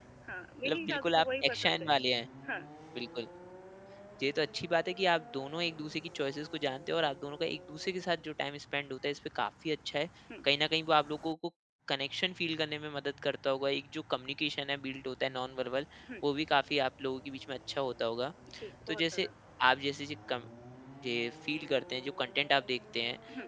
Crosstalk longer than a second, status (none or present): present